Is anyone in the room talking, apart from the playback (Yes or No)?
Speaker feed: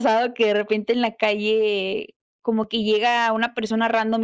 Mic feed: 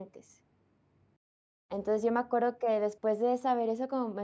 Yes